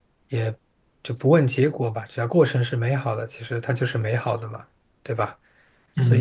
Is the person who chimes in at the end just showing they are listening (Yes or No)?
No